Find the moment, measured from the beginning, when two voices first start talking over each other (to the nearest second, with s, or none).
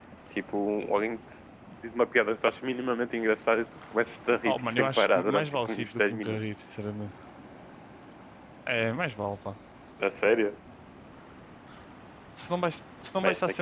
4 s